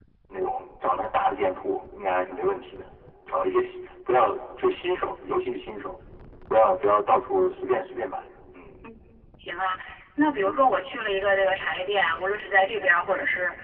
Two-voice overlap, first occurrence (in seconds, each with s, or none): none